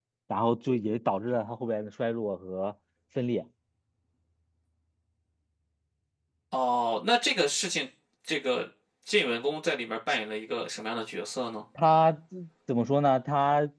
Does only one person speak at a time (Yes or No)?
Yes